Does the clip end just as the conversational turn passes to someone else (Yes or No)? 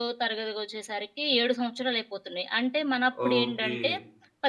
No